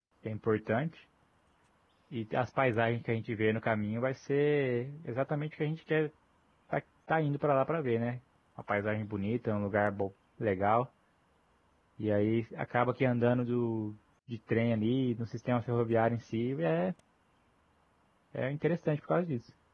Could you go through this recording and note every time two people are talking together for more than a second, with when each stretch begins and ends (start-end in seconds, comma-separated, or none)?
none